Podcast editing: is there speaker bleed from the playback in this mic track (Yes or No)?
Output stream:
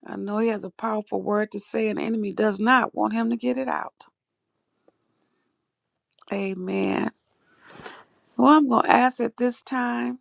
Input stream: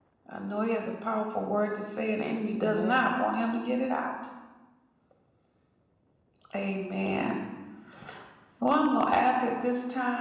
Yes